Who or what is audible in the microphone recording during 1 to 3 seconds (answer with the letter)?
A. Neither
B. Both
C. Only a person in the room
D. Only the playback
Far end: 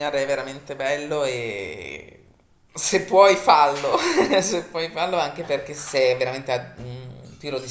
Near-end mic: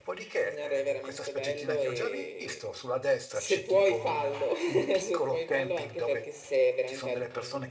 B